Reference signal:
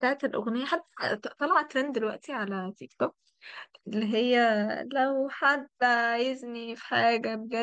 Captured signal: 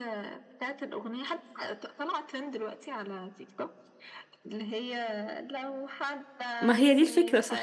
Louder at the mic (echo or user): user